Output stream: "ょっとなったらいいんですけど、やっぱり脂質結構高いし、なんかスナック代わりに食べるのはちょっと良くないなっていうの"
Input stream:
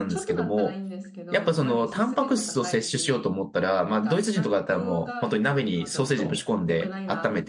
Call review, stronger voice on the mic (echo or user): user